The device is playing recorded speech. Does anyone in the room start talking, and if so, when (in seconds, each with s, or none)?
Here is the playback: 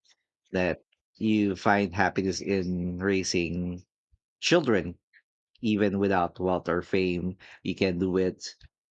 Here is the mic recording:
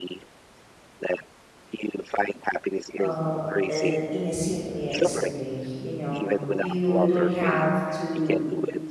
3.0 s